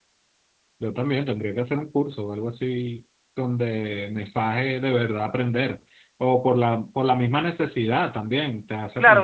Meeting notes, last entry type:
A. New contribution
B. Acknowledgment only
A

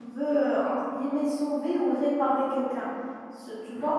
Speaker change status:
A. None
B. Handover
A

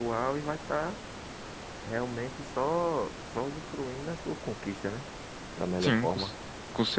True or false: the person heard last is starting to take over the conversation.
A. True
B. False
A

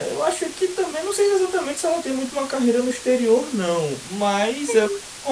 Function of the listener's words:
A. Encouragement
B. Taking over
A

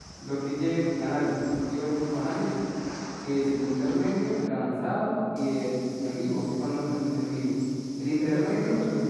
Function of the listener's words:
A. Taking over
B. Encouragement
A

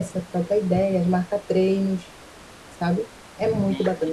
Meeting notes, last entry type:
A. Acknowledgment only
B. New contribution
B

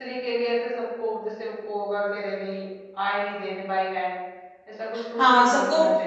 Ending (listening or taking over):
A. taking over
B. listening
A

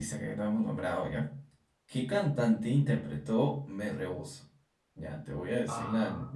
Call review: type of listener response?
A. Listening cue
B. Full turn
A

